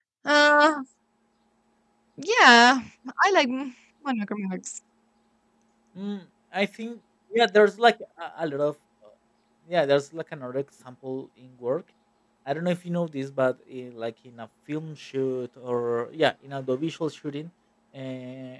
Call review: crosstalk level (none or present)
none